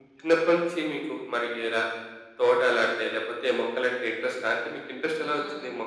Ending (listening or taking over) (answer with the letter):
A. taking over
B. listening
A